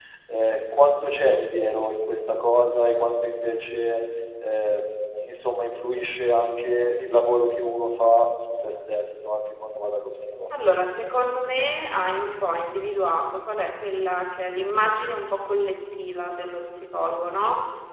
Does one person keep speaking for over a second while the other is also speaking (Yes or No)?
No